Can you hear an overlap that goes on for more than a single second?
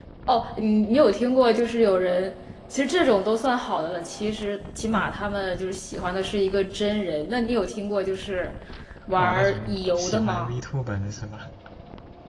Yes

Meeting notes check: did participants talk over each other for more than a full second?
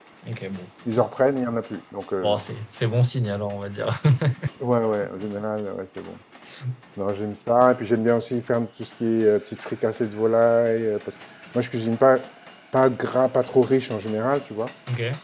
No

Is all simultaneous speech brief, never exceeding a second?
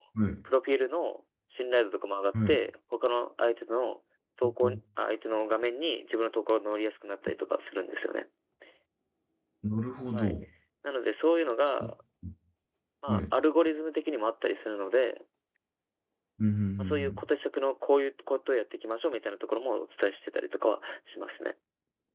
Yes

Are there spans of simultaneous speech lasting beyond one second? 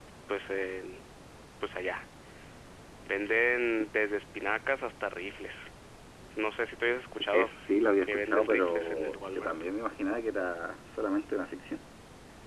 Yes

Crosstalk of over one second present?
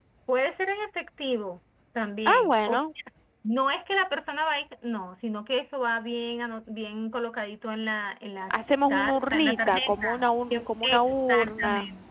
Yes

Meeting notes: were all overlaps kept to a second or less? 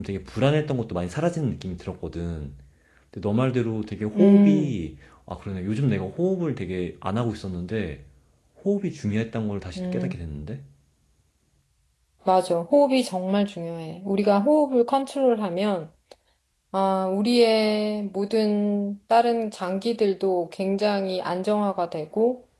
Yes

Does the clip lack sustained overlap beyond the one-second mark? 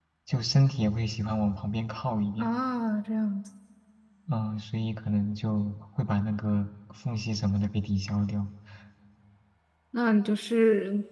Yes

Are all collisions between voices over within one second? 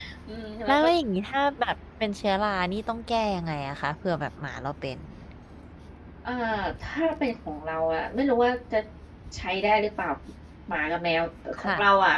Yes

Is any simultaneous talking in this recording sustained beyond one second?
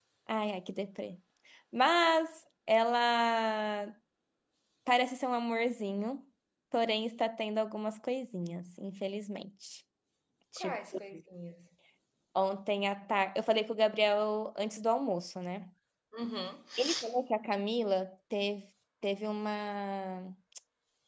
No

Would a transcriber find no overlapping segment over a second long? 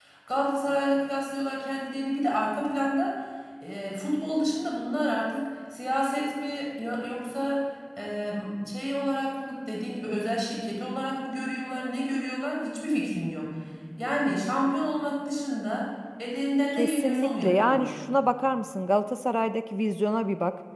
No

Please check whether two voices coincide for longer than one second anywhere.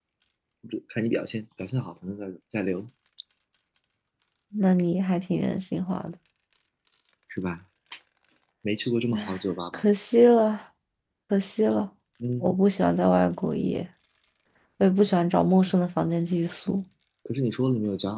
No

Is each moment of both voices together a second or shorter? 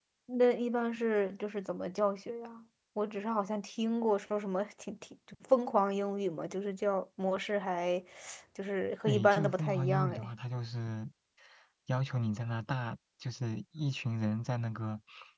No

